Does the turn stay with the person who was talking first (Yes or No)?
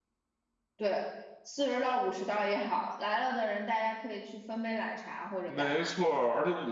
No